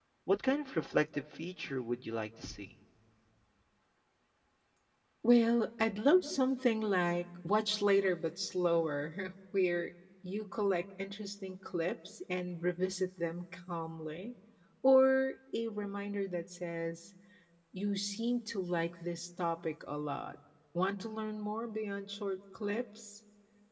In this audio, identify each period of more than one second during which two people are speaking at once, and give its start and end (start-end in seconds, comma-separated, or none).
none